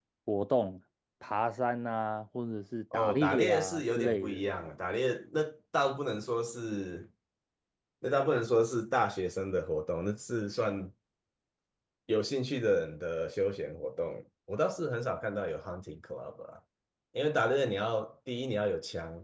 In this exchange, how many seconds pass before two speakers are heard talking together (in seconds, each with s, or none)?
2.9 s